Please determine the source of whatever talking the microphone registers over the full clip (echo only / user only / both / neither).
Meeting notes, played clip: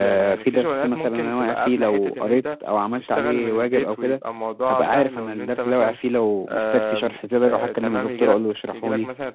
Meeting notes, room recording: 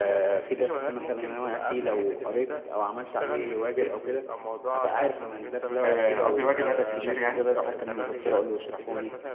both